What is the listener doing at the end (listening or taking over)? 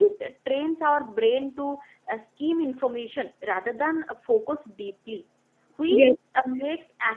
listening